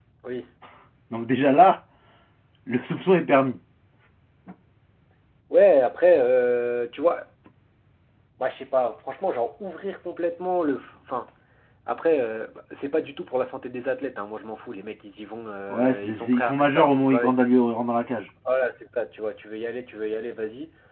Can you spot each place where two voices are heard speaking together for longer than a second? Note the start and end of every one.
15.7-17.3

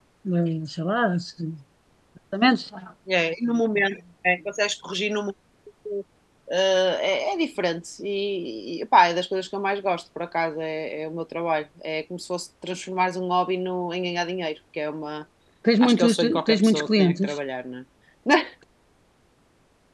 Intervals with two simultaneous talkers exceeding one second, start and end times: 15.8-17.4

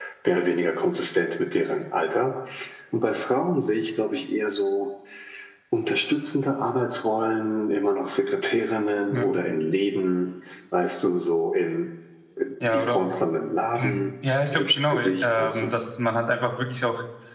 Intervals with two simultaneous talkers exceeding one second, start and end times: 14.5-15.7

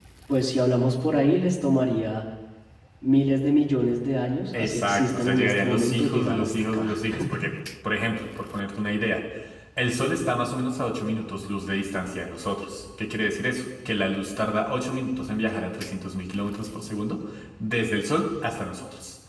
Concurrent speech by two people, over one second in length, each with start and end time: 4.6-6.9

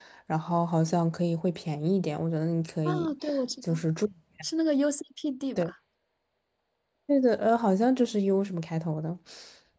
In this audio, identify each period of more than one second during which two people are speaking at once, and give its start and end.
none

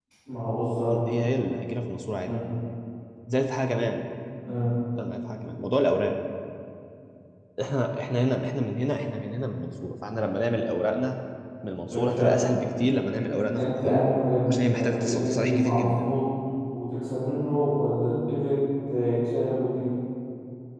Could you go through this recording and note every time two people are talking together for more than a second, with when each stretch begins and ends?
14.5-16.1

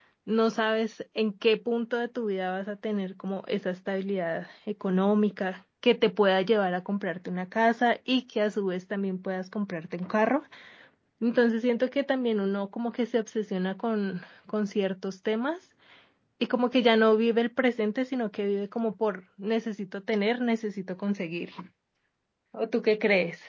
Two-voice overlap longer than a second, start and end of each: none

